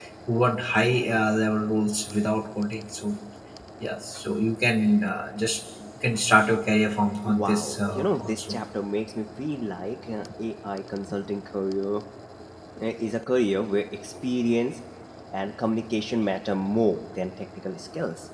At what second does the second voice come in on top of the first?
7.2 s

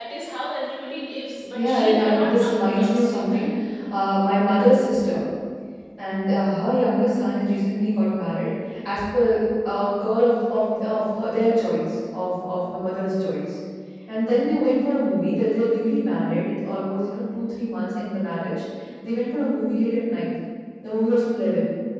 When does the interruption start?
1.5 s

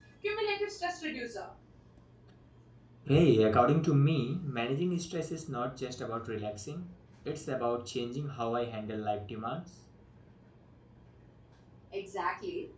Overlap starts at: none

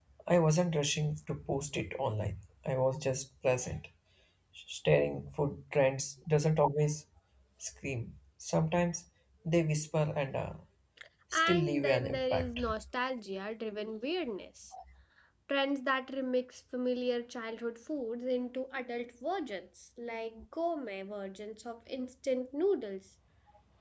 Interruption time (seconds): 11.3 s

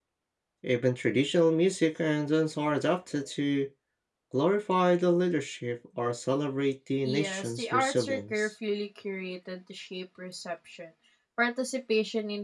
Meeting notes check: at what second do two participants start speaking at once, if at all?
7.0 s

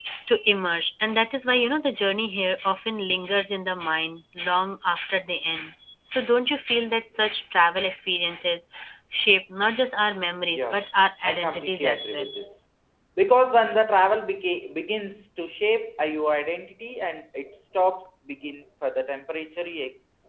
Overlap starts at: 10.5 s

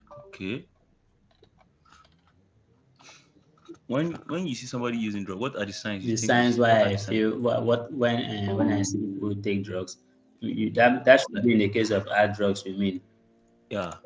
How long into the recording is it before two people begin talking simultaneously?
6.0 s

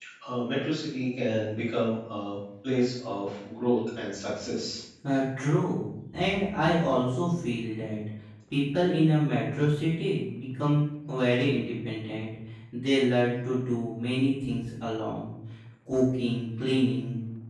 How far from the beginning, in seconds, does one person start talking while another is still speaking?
none

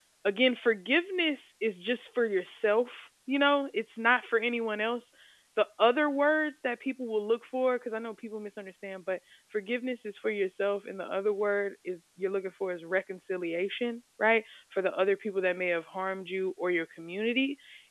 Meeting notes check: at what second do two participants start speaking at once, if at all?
none

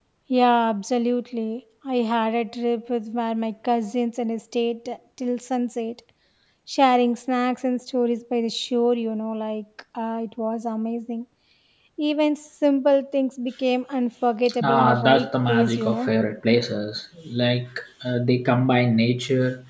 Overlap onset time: 14.6 s

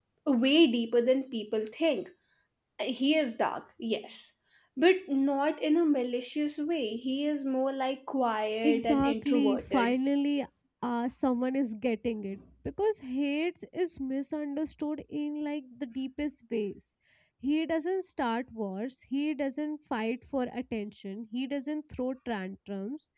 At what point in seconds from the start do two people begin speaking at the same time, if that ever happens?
8.6 s

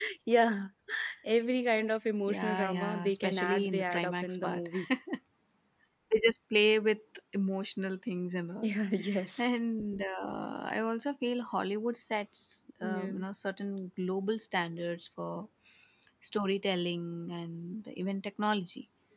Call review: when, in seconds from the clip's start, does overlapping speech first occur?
2.3 s

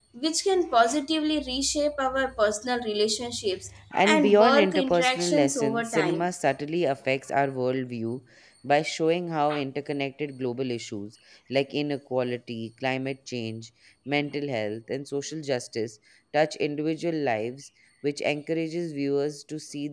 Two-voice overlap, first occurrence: 3.9 s

